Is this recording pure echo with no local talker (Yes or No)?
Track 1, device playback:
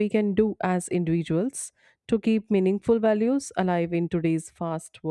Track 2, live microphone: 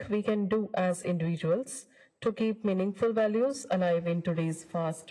Yes